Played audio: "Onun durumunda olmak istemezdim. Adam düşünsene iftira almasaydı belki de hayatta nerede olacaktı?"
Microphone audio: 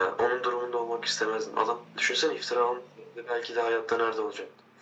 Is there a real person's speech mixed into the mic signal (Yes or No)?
No